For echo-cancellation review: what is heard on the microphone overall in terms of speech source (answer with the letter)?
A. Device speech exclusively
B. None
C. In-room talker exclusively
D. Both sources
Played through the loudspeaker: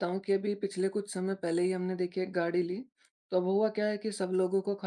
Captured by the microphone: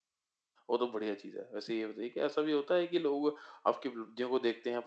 C